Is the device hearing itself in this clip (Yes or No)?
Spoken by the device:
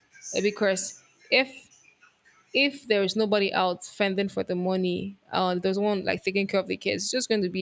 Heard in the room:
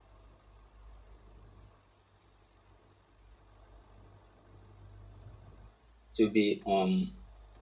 No